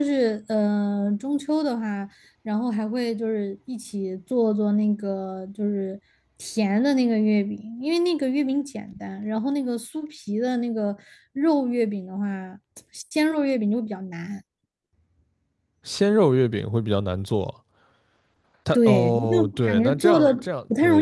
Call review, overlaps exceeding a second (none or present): present